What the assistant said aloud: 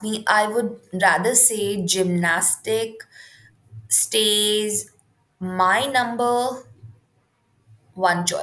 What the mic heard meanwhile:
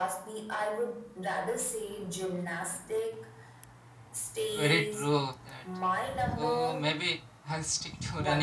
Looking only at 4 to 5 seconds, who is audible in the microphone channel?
both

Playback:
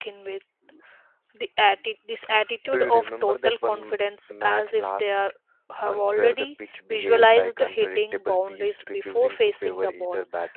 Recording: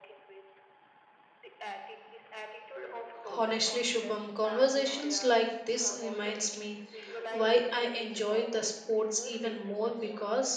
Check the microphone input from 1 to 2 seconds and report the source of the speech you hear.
echo only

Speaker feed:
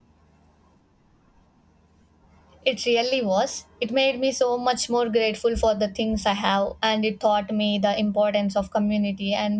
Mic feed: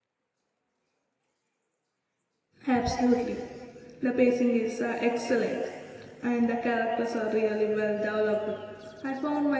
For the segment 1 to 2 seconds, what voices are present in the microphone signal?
neither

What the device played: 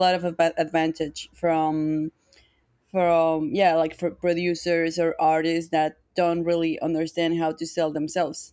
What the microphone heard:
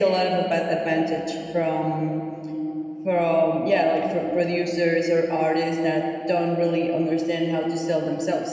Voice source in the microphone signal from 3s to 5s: echo only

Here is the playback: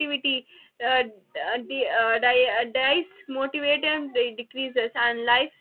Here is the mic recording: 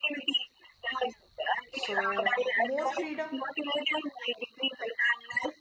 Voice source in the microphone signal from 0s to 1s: echo only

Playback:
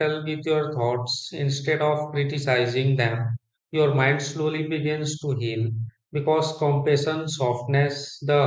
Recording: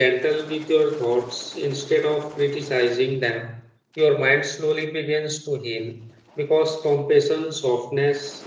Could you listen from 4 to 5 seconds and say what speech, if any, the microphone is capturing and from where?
echo only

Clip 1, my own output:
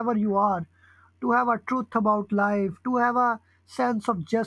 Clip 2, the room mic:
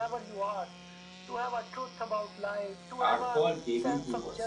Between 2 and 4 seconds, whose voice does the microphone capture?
both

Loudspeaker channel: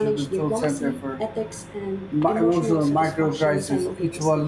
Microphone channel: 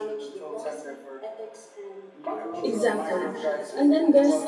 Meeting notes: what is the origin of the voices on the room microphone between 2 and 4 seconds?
both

